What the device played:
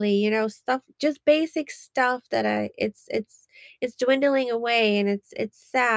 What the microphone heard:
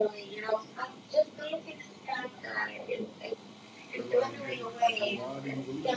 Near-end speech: present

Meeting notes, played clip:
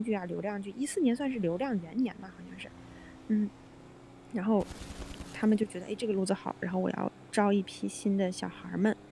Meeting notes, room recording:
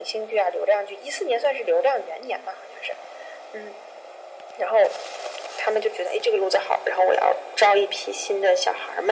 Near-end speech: none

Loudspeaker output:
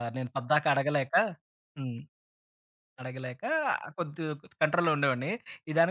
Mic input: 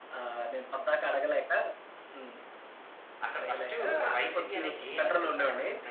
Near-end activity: present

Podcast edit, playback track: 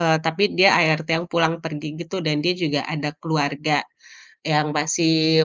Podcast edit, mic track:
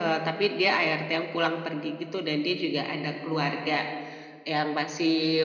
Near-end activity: none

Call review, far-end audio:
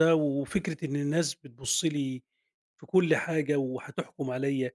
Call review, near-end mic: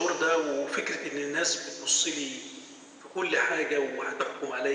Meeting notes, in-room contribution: none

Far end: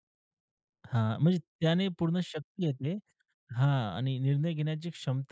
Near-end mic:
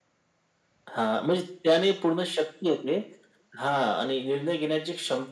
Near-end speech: none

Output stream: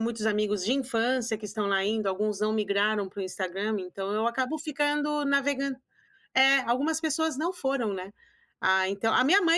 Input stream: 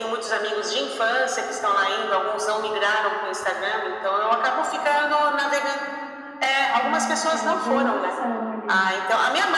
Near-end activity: present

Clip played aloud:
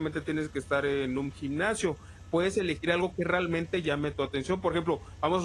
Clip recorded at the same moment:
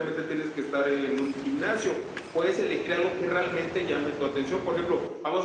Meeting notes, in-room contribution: none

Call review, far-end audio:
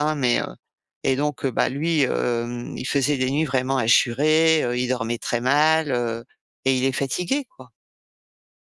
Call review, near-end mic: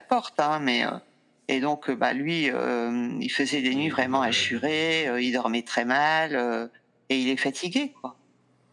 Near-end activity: present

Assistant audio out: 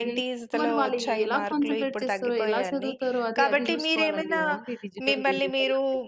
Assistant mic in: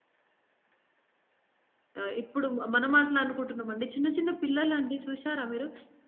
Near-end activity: present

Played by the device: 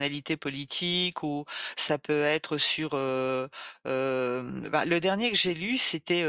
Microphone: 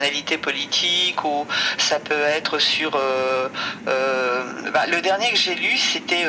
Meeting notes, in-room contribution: none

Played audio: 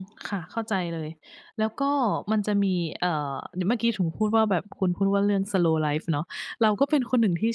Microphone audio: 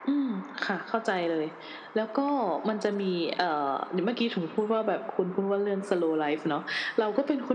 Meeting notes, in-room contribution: none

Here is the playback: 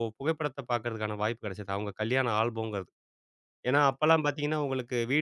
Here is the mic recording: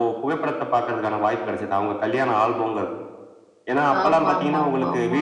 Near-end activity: present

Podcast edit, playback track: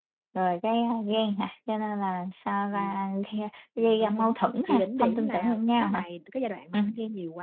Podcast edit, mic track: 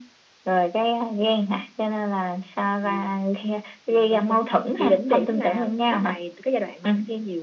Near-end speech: none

